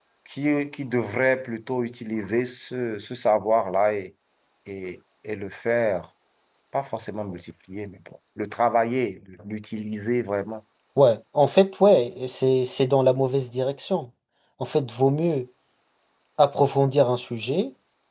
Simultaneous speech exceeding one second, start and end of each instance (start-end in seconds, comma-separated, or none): none